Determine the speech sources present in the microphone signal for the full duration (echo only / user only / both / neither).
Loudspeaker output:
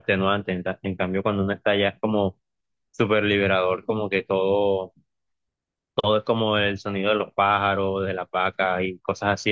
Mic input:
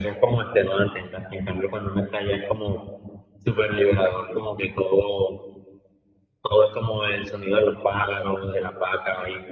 echo only